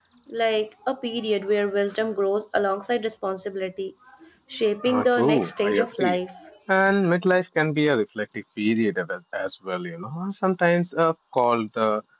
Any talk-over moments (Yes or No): Yes